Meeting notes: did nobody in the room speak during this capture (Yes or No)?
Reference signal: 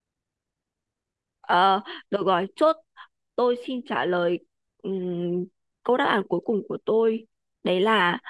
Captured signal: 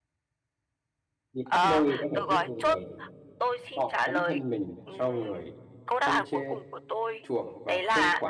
No